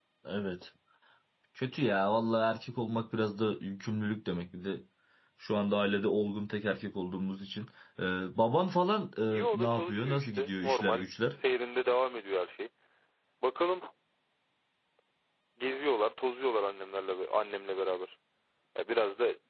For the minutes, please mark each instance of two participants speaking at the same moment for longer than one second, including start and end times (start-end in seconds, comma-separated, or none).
9.3-11.1